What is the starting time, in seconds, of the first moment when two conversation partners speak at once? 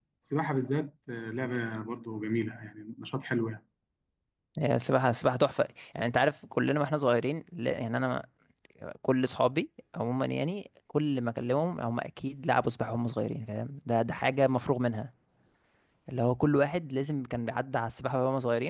none

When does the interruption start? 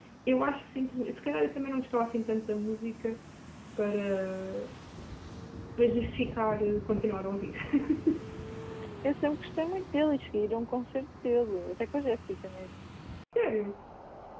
none

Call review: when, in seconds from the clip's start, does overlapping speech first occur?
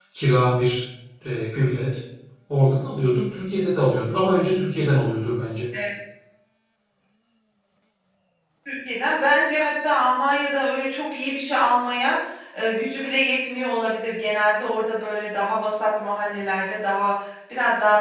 none

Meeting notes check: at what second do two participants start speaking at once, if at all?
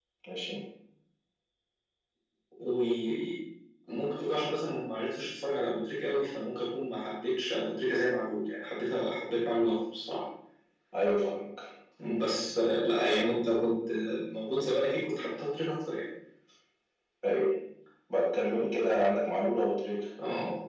none

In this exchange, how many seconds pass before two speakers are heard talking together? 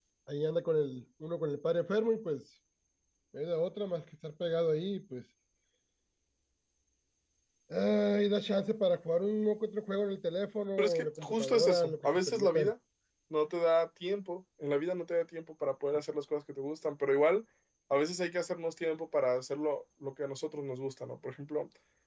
11 s

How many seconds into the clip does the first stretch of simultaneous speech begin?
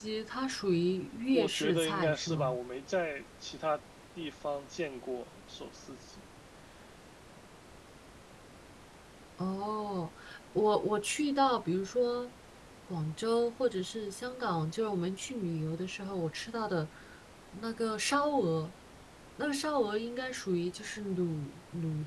1 s

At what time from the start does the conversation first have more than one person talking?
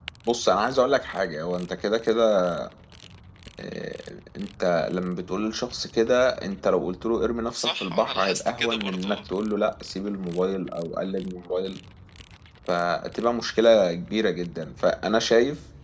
8 s

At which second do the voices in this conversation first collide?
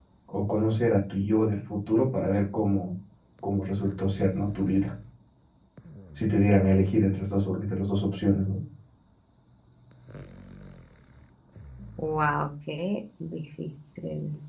none

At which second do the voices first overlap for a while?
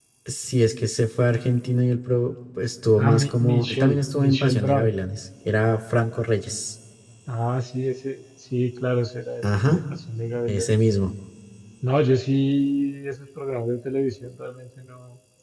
3 s

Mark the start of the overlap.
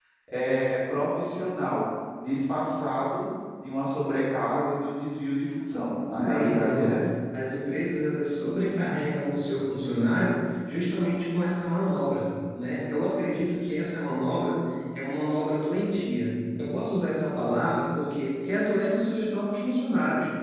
6 s

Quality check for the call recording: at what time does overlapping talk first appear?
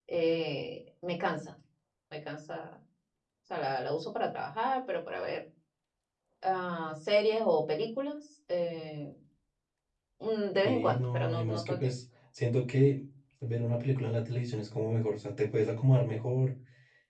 11 s

